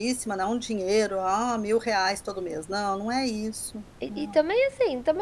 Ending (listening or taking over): taking over